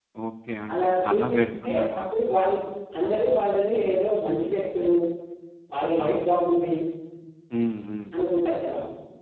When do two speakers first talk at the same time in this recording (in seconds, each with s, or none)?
0.7 s